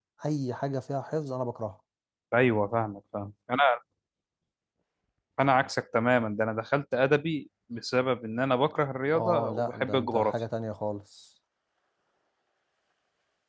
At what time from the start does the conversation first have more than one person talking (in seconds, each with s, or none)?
9.1 s